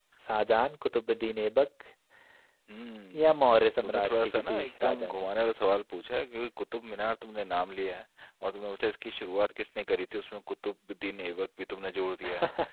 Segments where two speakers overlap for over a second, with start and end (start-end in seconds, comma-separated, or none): 3.8-5.3